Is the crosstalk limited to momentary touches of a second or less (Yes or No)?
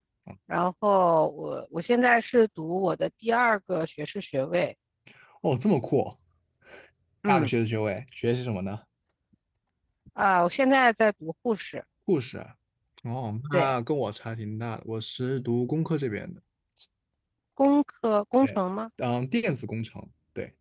Yes